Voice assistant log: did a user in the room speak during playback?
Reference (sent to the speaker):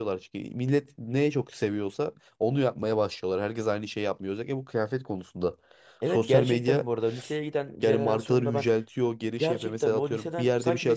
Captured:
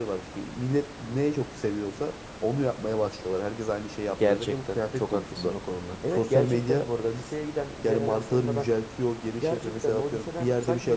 Yes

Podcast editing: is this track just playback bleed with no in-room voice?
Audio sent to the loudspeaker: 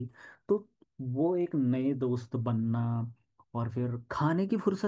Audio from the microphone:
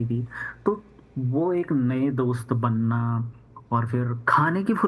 Yes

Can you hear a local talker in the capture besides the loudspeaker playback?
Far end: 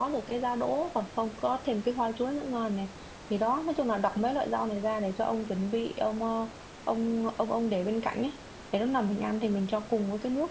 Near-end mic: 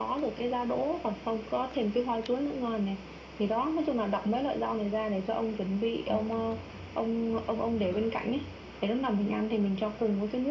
Yes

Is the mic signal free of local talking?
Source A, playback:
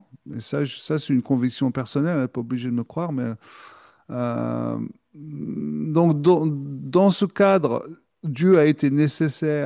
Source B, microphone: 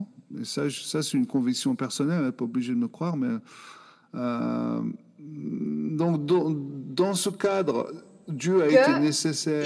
No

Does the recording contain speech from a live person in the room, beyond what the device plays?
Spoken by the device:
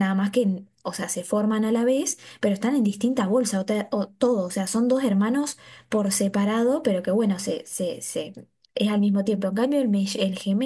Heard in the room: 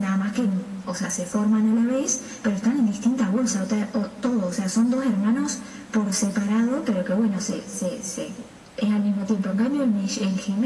No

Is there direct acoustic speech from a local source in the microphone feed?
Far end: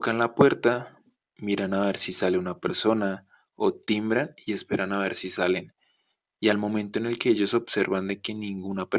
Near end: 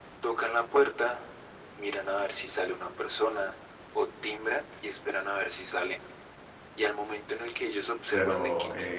Yes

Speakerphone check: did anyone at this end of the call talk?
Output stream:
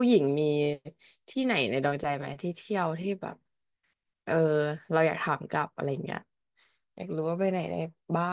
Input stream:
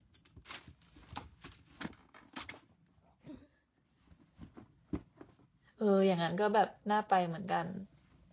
Yes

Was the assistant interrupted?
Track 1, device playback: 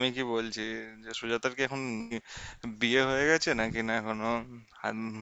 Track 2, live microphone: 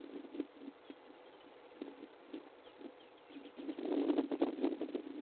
No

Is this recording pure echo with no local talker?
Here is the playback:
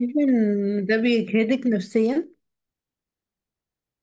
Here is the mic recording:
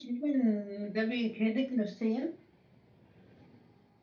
Yes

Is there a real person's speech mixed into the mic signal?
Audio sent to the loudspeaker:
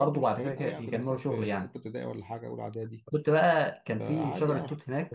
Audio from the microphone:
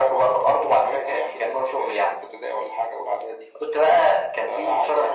No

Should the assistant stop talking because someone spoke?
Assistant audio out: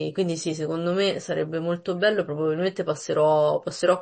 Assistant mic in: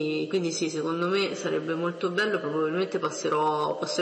No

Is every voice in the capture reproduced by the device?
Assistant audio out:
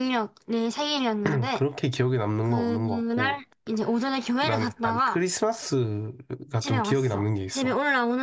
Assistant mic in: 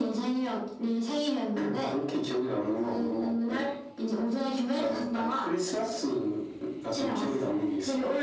Yes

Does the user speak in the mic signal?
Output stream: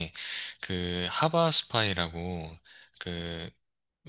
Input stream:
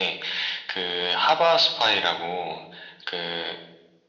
No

